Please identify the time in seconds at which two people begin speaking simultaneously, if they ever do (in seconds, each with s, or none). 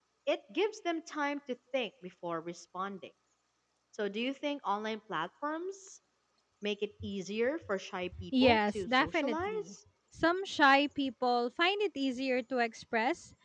8.3 s